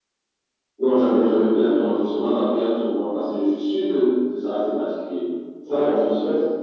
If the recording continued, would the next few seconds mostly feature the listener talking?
Yes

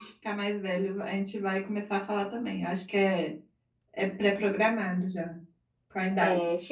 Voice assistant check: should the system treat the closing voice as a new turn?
No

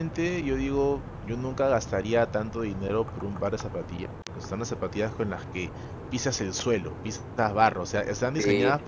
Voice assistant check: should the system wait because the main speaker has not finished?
Yes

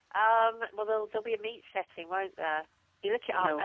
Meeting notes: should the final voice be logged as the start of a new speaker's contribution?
No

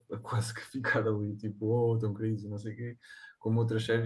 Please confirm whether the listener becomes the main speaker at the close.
No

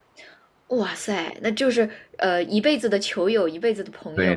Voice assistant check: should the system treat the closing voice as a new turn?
Yes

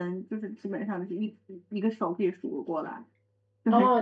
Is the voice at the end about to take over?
Yes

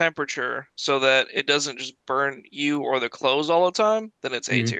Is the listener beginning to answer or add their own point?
Yes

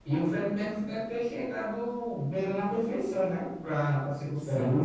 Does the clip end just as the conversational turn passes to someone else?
Yes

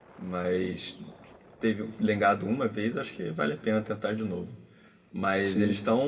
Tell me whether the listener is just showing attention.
Yes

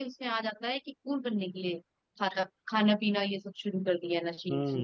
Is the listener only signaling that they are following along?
No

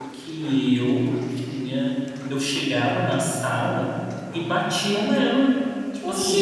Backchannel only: Yes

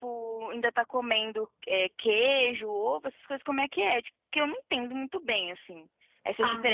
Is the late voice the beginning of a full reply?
No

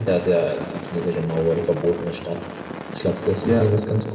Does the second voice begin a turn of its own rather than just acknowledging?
No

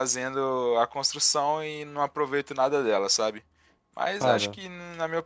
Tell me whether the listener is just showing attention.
Yes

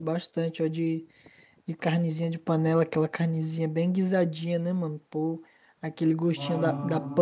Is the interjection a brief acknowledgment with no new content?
Yes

